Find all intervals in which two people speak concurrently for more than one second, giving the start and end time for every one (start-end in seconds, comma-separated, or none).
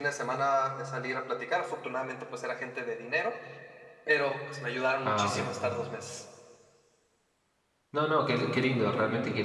none